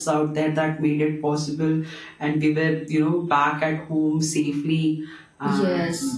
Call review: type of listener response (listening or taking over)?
listening